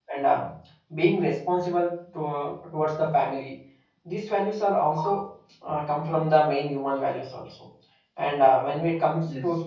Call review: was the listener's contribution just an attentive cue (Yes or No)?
Yes